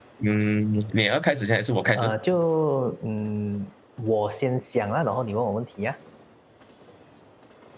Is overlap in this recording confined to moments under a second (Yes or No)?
Yes